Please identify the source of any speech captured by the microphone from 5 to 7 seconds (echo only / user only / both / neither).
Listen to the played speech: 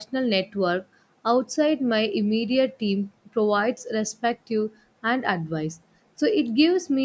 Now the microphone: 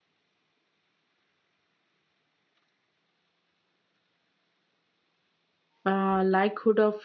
user only